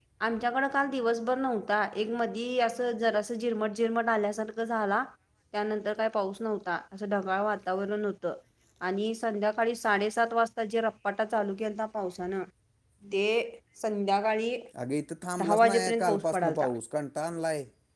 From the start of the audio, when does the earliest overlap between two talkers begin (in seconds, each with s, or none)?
15.4 s